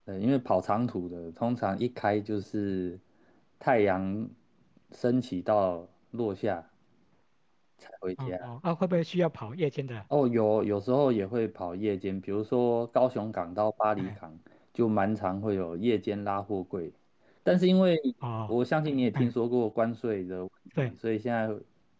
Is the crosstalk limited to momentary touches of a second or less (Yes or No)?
Yes